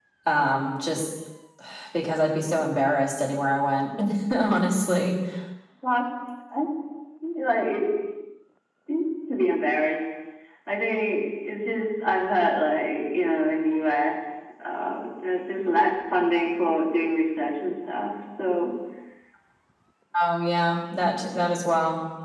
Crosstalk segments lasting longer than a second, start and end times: none

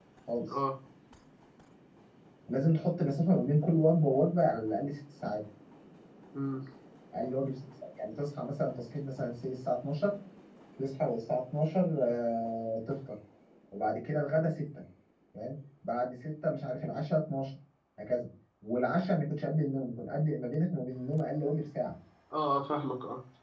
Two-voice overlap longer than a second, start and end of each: none

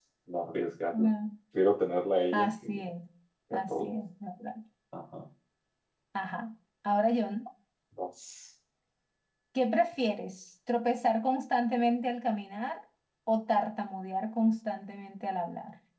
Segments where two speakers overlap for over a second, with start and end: none

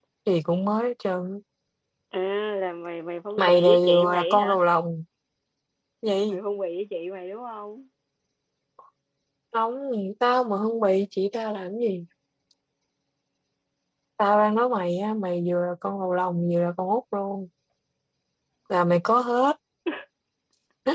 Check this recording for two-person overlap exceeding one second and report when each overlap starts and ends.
3.4-4.6

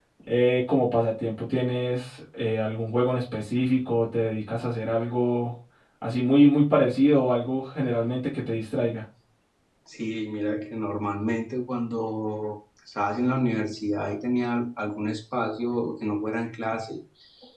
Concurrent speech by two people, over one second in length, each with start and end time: none

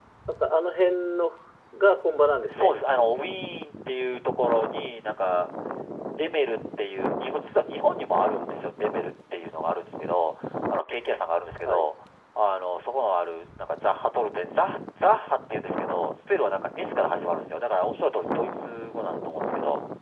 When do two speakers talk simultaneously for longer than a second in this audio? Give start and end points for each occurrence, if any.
none

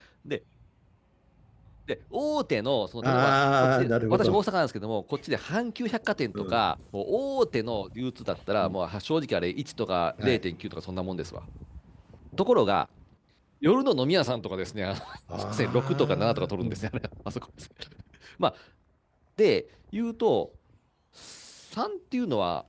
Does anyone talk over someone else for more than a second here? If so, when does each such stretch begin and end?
3.0-4.3, 15.5-16.9

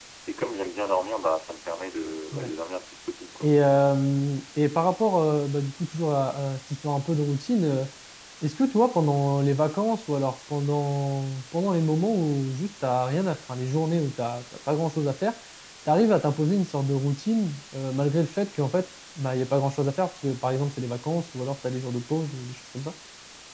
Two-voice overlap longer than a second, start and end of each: none

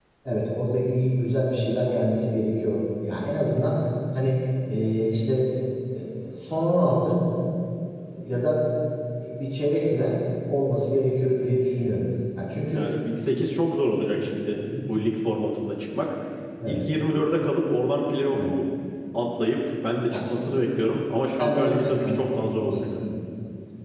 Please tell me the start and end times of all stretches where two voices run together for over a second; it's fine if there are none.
21.3-22.8

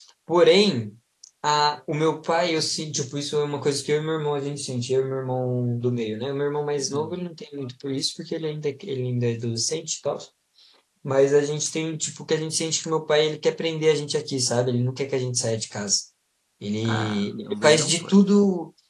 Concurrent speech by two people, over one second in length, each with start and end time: 16.9-18.2

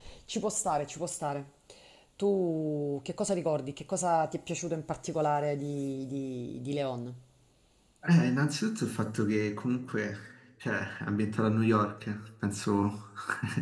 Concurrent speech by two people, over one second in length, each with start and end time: none

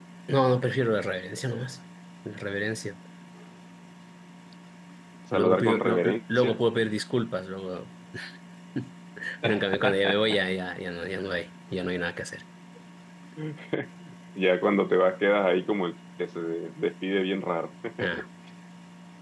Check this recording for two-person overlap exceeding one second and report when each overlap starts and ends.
5.3-6.6

